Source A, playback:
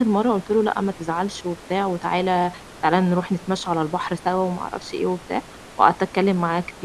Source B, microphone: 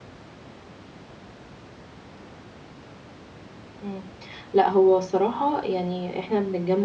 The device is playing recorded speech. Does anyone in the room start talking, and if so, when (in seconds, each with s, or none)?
3.8 s